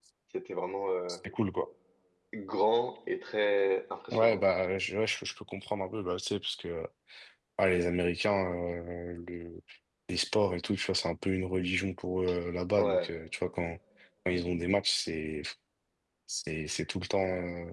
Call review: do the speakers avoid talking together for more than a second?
Yes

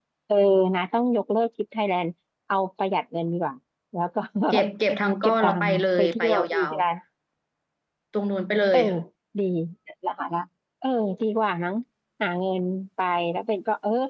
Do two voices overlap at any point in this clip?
Yes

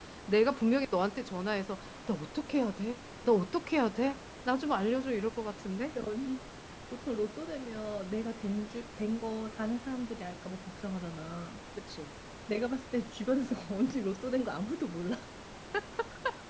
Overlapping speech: No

